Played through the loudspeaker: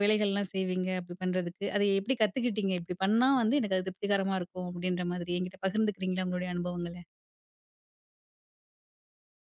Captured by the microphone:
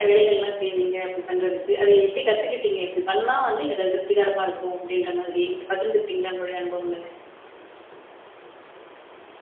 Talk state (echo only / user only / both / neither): echo only